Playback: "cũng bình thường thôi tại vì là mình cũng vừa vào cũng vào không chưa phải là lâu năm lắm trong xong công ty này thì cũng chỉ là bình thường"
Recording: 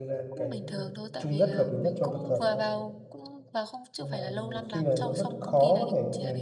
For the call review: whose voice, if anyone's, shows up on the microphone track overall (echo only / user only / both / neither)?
both